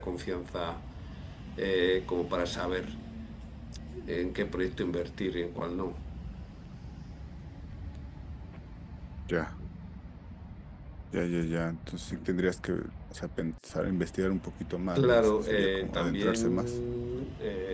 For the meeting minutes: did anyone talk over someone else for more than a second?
Yes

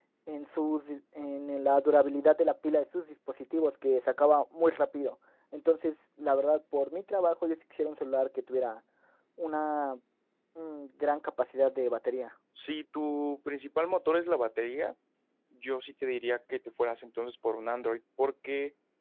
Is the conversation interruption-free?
Yes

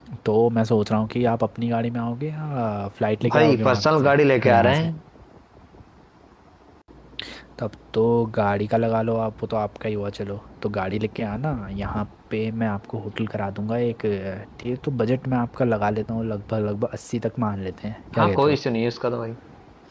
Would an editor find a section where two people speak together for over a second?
Yes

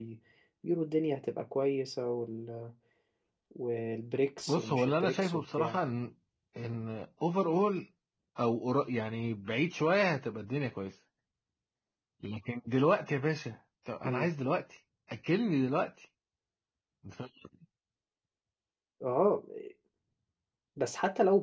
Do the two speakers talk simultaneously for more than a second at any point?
Yes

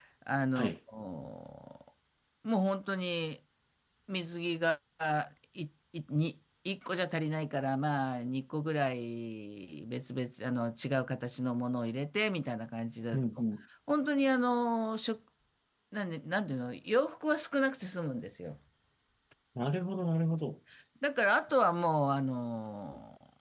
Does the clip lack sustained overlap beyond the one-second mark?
Yes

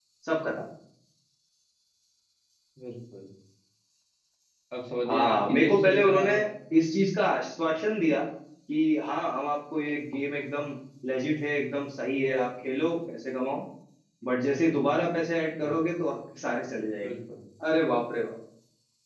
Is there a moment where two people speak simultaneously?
Yes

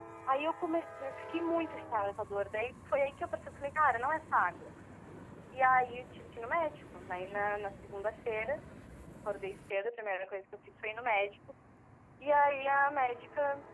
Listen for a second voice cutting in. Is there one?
No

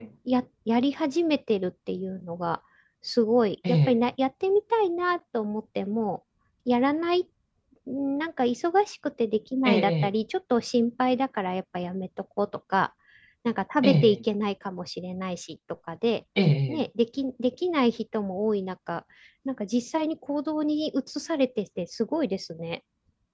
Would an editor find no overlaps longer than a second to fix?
Yes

